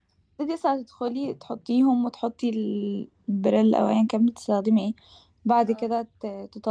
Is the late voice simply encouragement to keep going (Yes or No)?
Yes